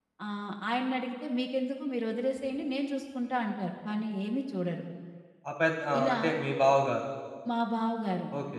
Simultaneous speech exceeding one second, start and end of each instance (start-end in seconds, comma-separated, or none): none